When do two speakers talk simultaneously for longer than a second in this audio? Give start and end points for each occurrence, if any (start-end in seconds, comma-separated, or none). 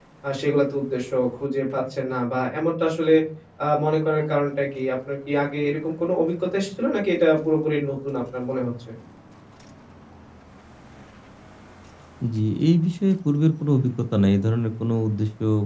none